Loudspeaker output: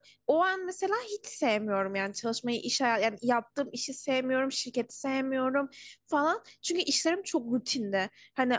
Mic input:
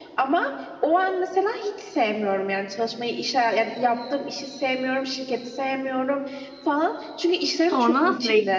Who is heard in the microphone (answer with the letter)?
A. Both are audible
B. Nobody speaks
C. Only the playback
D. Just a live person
A